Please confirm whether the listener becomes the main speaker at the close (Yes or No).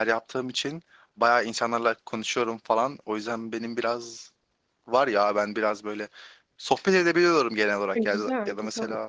No